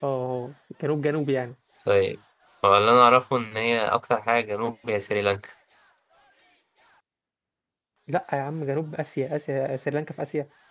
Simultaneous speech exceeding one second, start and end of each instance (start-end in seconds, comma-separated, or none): none